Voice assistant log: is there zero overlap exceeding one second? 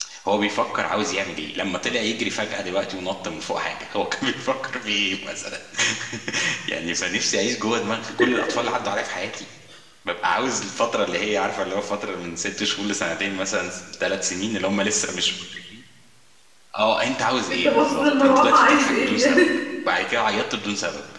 No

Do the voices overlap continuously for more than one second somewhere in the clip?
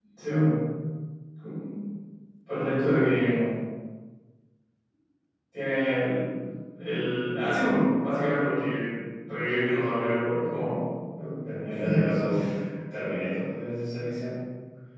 No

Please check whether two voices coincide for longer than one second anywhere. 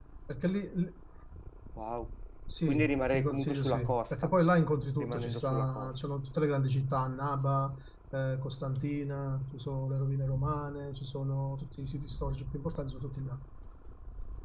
Yes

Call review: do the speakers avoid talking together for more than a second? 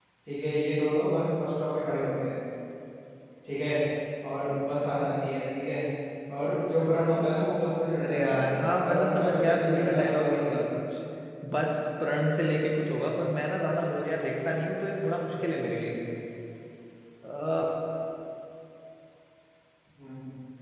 No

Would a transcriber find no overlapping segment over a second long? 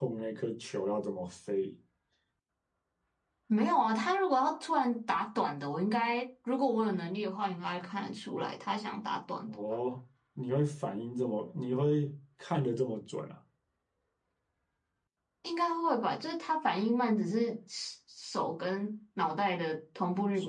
Yes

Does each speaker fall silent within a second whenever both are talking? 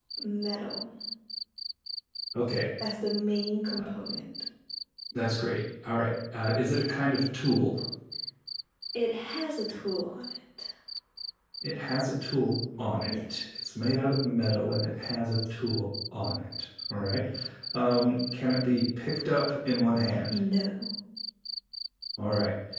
Yes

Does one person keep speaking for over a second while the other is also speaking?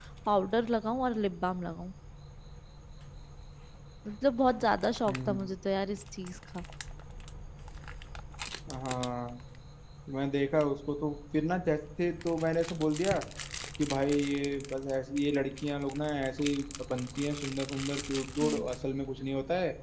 No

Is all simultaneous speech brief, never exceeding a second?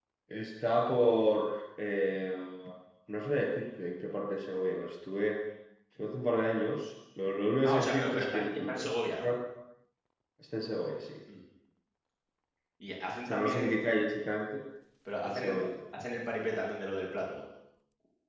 No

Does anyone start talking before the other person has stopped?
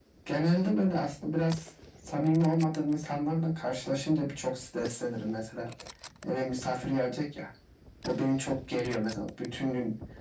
No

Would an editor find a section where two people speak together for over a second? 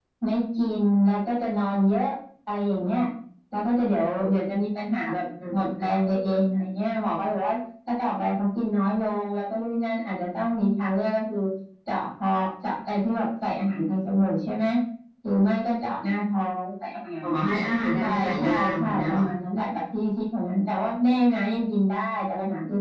Yes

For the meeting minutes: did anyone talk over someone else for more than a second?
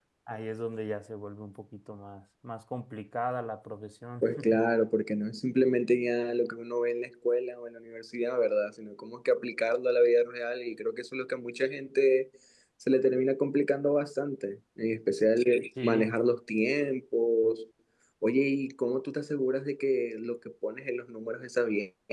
No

